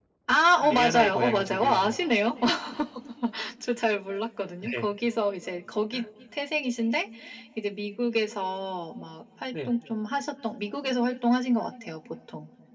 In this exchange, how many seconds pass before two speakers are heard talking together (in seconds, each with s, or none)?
0.6 s